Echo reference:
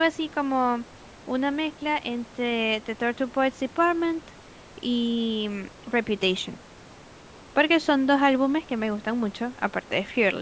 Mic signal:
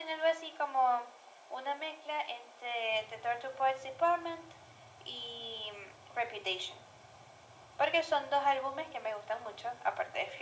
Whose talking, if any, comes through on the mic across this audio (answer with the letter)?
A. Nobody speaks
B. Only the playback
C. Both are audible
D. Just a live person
B